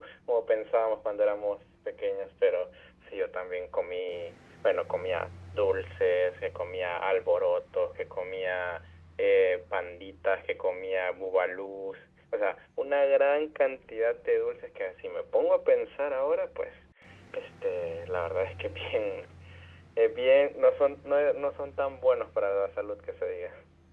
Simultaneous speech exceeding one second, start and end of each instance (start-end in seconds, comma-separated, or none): none